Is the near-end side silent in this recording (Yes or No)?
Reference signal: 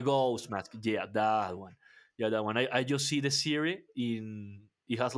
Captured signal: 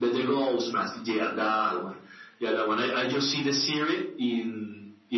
Yes